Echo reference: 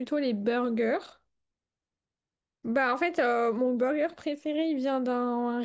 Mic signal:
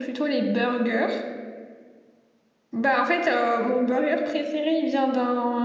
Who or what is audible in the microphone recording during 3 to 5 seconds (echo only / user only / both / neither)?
echo only